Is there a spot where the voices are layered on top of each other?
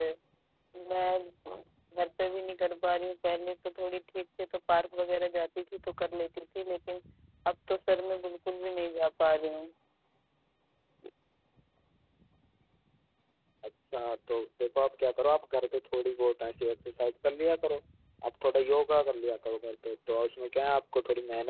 No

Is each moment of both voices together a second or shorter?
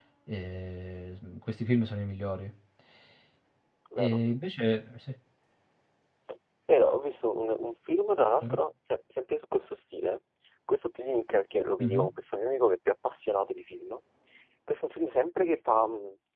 Yes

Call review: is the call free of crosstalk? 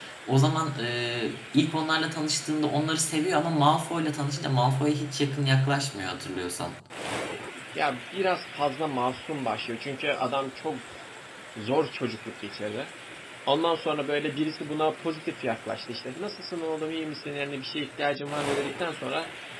Yes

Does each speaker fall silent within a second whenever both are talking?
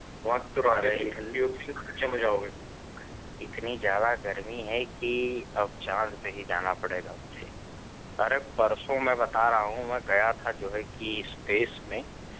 Yes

